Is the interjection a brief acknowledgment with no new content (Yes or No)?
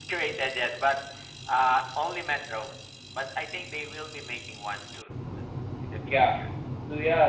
No